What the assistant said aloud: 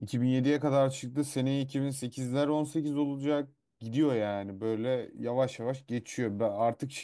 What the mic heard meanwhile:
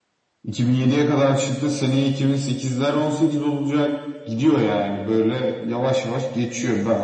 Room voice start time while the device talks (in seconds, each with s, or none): none